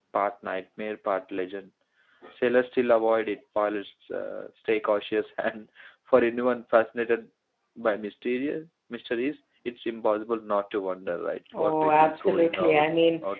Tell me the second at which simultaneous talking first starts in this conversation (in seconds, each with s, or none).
11.5 s